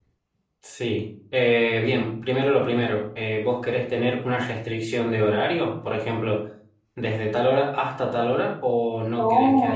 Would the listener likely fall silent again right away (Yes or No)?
No